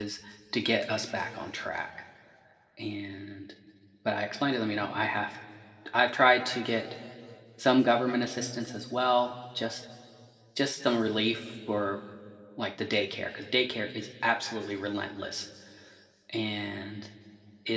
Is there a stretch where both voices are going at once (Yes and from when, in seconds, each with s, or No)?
No